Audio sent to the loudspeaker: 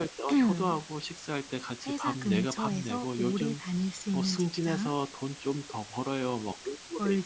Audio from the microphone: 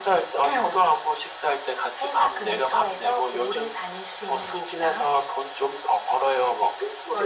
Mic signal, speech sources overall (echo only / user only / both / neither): echo only